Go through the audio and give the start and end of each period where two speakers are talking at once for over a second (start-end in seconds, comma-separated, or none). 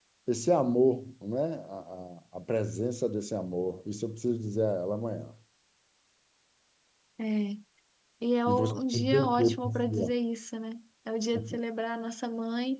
8.5-10.1